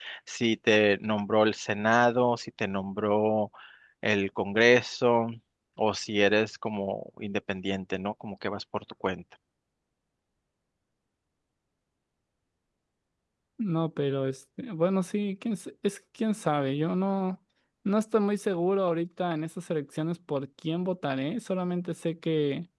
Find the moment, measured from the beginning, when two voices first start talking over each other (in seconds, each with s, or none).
none